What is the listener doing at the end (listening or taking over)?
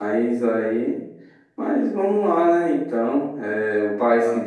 listening